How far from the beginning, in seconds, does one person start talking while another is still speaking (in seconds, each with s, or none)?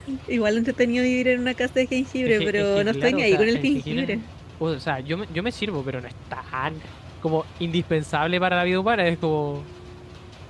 2.3 s